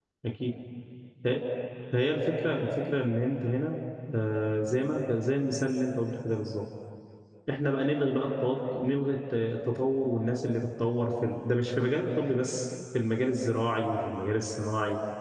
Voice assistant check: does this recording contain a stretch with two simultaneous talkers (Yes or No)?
No